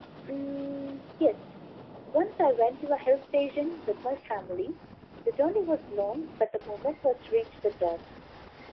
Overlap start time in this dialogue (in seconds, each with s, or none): none